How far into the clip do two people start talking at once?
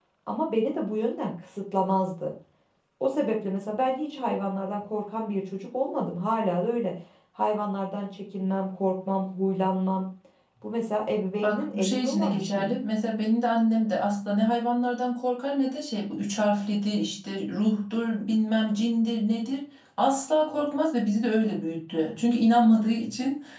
11.4 s

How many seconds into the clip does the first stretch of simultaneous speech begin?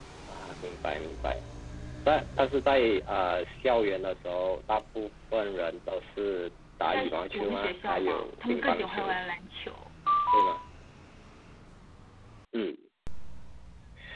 6.8 s

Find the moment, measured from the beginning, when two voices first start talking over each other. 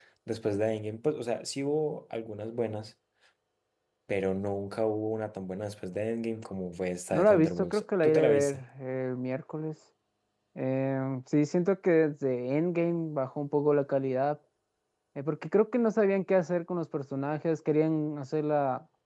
7.1 s

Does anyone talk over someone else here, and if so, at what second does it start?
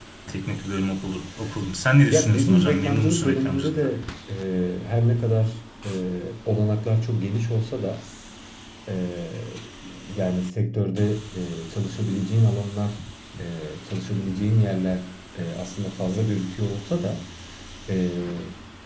2.1 s

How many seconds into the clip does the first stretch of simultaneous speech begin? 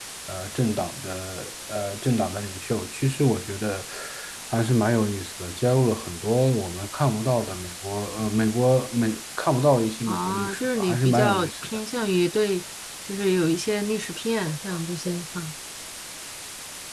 10.1 s

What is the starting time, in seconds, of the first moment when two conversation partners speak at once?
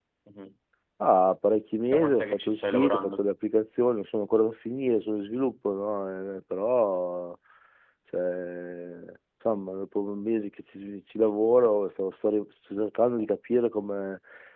1.9 s

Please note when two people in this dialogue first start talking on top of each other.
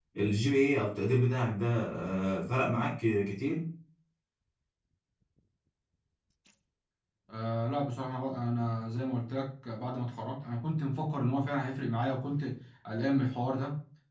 none

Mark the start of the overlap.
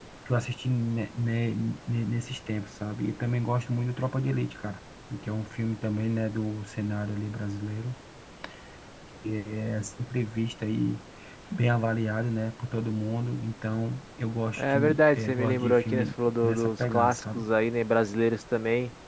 14.6 s

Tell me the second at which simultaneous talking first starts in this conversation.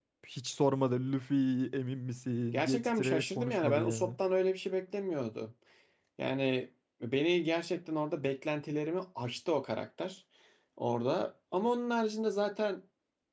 2.5 s

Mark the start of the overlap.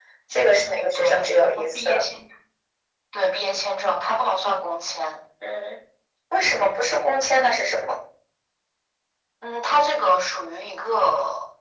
0.6 s

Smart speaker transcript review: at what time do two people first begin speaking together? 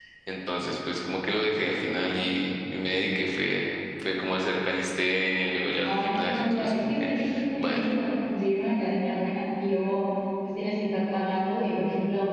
5.8 s

